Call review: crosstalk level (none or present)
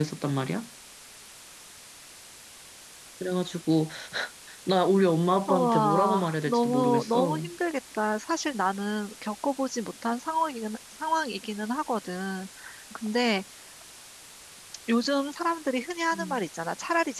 present